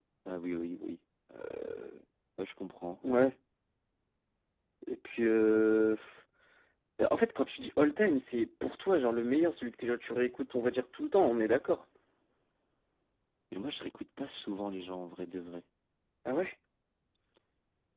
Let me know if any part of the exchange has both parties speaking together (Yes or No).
No